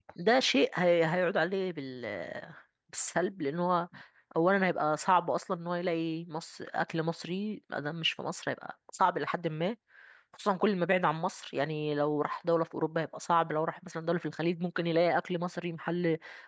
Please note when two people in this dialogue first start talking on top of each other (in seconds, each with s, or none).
none